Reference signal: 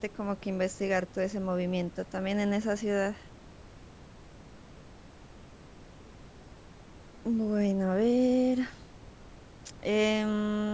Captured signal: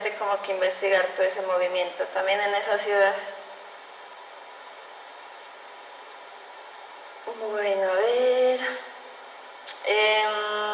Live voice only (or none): none